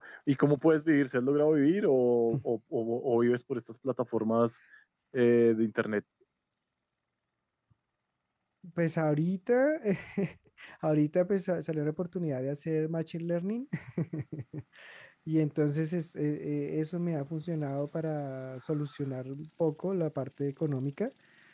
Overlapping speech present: No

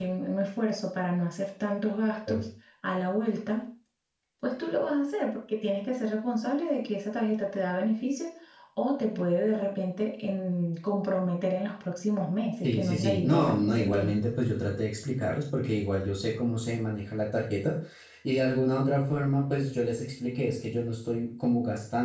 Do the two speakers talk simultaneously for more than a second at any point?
Yes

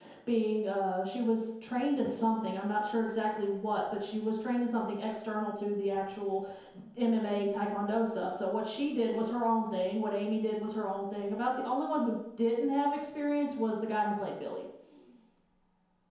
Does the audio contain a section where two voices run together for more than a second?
No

